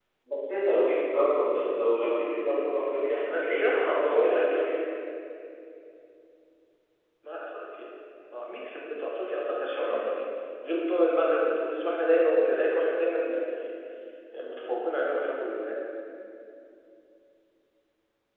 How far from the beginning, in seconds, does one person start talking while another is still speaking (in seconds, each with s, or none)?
3.3 s